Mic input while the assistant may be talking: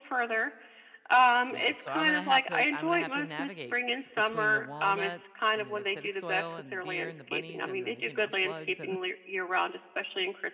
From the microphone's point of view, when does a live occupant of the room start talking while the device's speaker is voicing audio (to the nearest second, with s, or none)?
2 s